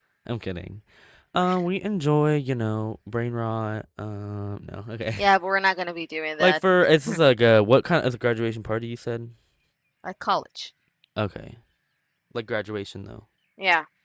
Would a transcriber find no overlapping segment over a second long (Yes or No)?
Yes